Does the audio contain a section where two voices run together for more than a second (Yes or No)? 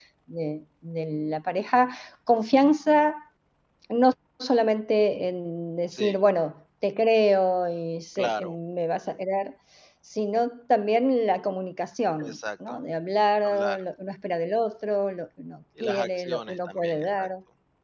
Yes